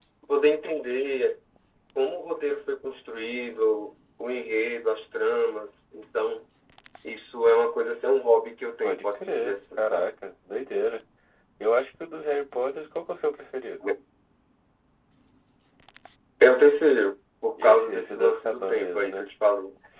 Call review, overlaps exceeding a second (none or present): present